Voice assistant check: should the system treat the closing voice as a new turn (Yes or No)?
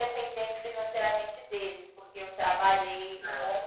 No